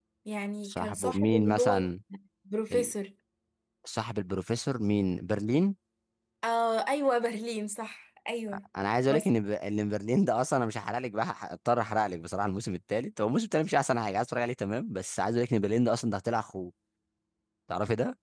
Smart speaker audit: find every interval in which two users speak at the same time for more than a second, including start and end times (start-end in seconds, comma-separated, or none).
0.6-1.9